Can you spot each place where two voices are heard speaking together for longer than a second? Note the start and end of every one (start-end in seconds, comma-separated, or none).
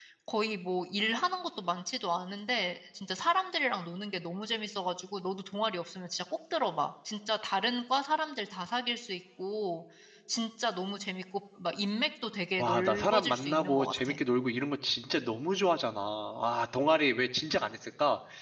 12.6-14.2